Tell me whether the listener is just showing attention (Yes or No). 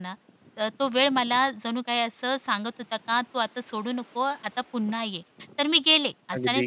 Yes